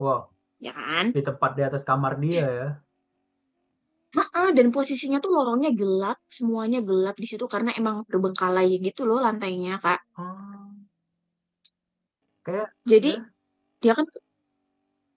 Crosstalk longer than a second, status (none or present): none